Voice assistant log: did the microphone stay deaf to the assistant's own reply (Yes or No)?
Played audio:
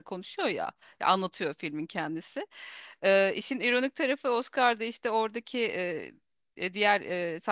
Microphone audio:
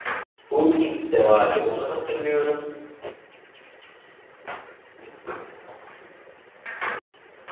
Yes